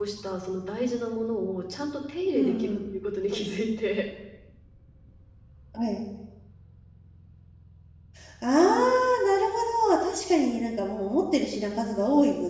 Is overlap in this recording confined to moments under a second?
Yes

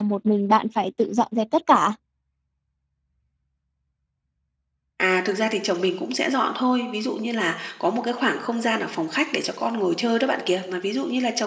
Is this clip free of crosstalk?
Yes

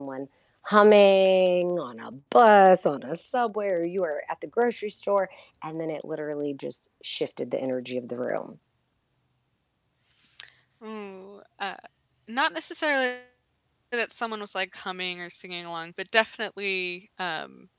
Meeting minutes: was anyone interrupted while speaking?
No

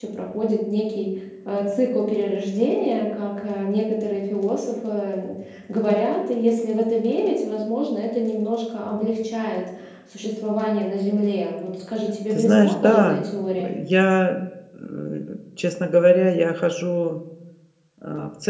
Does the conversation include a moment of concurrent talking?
Yes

